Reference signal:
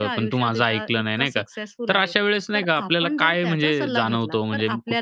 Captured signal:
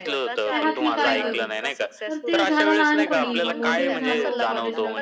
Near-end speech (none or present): present